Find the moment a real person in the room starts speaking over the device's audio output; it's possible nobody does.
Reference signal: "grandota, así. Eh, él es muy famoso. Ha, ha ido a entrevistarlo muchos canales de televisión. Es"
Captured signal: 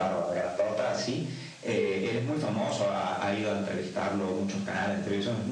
1.6 s

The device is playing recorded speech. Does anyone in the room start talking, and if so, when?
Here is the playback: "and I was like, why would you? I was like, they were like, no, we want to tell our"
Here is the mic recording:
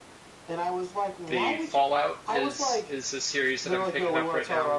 1.3 s

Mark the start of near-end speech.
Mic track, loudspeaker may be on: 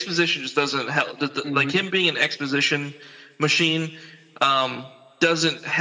1.4 s

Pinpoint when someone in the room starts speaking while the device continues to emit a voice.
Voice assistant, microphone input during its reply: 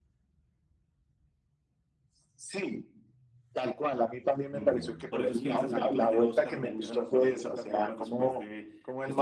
4.5 s

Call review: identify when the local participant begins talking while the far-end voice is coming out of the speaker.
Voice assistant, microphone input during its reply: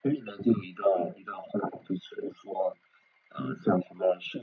none

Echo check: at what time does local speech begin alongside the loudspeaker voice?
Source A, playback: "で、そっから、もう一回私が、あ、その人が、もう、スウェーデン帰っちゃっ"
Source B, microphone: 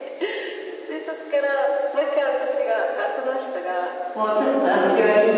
4.1 s

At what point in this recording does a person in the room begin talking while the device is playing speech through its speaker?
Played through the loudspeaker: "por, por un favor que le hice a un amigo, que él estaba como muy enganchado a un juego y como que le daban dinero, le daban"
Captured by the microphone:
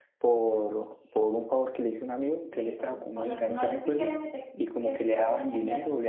2.5 s

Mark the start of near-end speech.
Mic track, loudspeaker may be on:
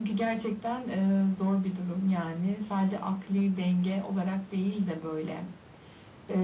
none

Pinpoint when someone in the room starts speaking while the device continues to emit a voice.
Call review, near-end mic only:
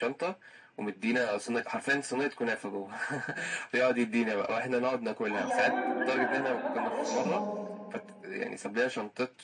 5.3 s

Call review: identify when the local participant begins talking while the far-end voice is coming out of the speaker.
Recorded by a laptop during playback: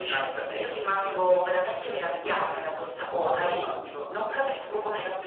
none

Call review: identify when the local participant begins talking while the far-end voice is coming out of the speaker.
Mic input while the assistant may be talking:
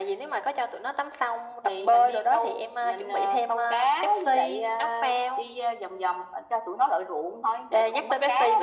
none

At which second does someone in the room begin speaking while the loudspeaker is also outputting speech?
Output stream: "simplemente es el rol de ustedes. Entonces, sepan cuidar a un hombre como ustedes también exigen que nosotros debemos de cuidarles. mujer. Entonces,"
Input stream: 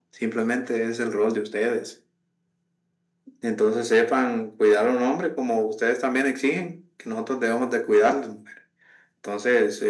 none

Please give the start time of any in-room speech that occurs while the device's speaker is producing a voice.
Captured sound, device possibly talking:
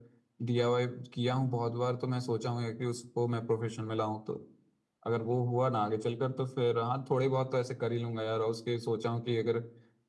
none

